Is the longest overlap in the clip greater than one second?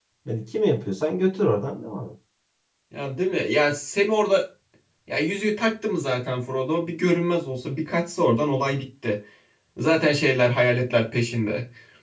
No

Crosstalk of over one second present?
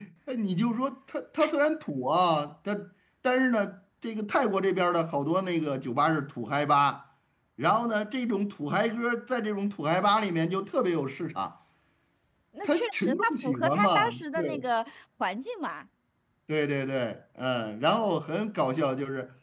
Yes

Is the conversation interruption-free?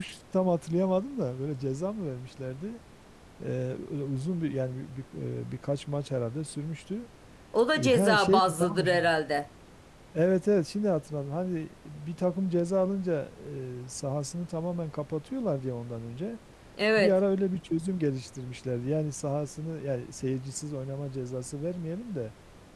No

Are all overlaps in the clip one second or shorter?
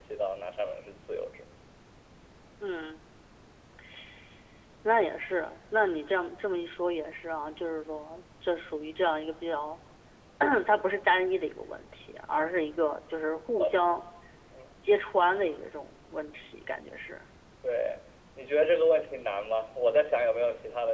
Yes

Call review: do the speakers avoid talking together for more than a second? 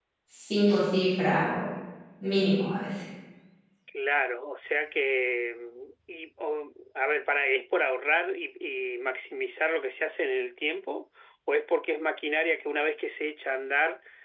Yes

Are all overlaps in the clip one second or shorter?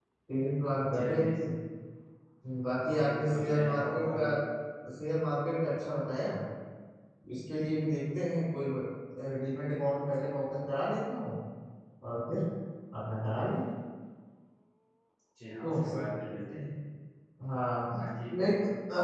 No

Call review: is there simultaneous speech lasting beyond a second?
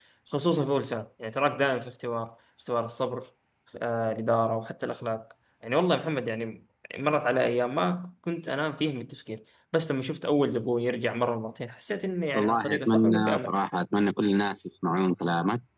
Yes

